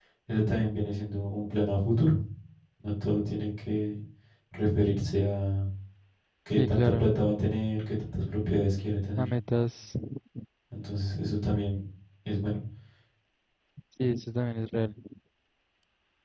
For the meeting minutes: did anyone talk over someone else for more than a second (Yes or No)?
No